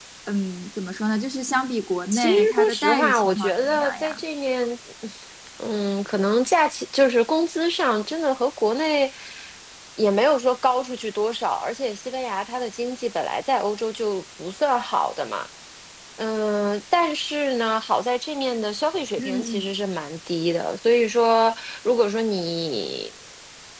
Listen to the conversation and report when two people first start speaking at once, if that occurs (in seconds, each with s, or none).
2.1 s